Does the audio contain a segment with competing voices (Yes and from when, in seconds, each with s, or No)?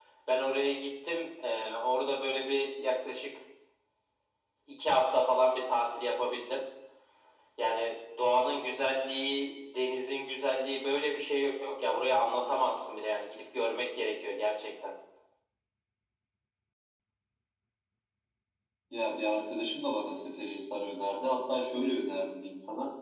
No